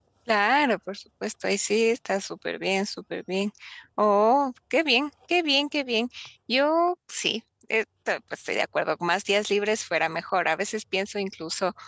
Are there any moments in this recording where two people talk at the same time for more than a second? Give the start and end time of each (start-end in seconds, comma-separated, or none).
none